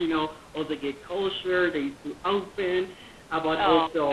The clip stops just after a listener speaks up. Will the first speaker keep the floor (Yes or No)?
Yes